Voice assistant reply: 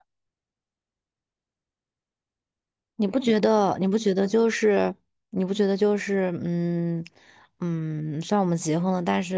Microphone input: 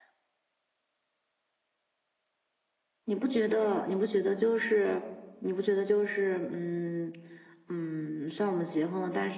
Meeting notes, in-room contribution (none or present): none